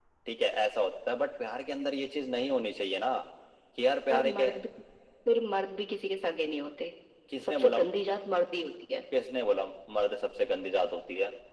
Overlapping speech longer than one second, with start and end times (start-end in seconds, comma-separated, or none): none